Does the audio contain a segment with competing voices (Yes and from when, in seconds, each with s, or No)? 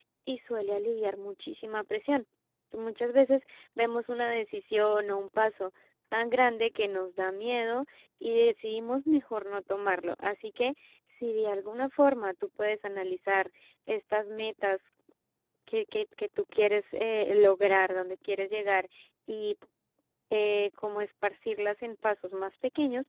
No